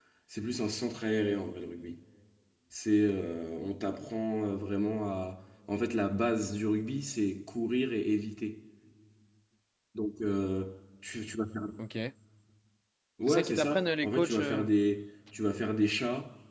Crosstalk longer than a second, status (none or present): present